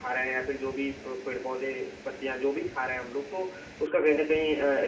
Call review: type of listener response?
listening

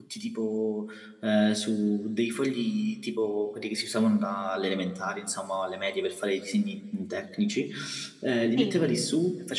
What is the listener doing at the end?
listening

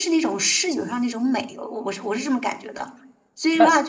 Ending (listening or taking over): listening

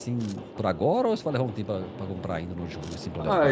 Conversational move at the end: taking over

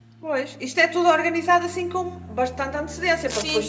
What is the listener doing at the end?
taking over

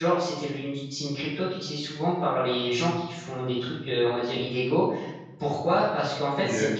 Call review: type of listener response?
listening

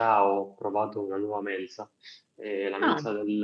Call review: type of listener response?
listening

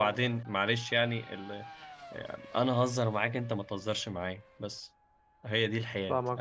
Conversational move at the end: taking over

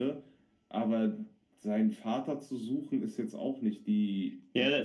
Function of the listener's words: taking over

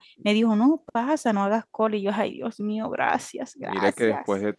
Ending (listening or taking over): taking over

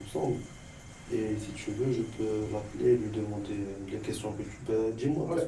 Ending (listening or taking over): taking over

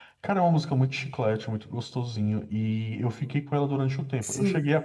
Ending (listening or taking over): listening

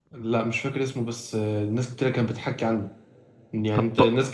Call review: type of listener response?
listening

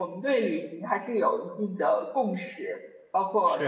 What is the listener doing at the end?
listening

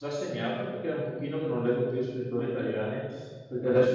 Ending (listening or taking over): listening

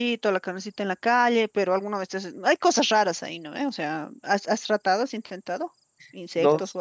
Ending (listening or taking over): taking over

